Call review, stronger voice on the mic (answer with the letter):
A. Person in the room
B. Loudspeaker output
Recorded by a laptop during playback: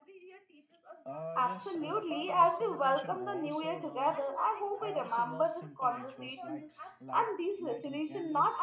A